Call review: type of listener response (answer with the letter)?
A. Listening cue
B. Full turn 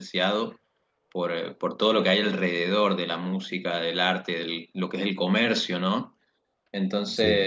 A